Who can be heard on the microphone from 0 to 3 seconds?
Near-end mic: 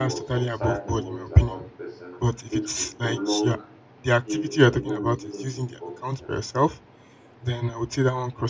both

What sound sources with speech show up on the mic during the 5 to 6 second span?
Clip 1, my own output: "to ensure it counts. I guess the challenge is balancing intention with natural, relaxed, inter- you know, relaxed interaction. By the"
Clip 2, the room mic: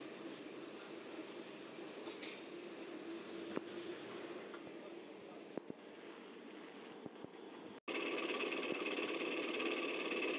neither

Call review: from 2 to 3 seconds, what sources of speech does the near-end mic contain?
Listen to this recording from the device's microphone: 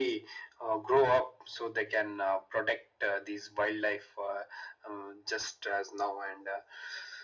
echo only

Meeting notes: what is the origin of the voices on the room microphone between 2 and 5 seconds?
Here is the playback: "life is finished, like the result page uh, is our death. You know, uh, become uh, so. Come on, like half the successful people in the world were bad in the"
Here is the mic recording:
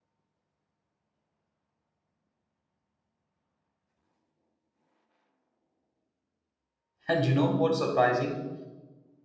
neither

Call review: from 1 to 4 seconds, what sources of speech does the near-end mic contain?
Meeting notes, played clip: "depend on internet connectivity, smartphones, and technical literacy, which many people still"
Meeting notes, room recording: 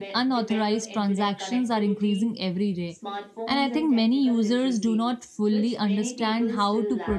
both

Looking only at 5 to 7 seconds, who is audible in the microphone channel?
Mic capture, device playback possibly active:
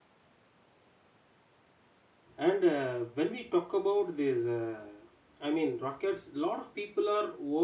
user only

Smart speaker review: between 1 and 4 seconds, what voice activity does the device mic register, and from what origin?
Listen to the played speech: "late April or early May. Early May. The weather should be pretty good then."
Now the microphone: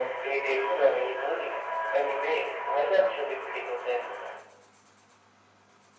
echo only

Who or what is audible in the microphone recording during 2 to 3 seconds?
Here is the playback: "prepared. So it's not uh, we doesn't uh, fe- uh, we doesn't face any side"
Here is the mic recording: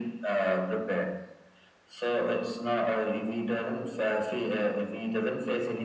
echo only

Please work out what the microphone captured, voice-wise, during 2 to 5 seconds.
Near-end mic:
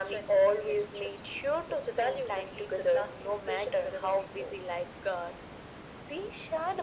echo only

